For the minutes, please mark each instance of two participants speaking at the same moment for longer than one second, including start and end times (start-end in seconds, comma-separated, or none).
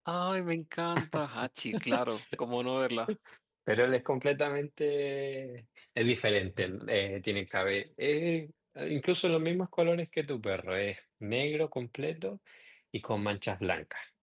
none